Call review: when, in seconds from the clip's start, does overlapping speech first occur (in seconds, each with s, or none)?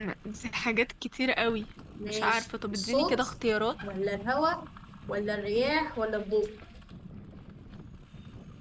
2.1 s